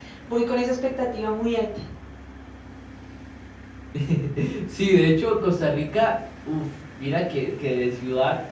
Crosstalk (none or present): none